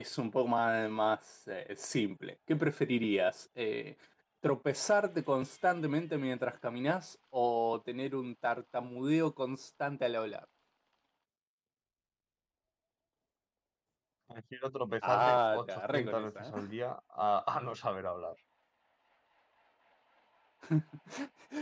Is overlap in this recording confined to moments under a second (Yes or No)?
No